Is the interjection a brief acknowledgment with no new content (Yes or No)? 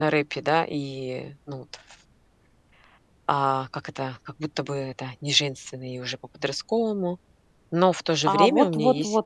No